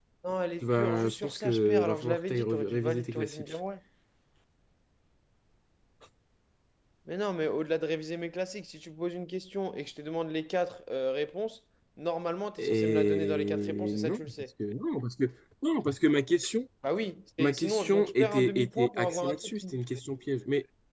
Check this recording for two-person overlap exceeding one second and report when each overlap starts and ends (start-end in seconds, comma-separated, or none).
0.6-3.4, 12.6-14.3, 17.4-19.8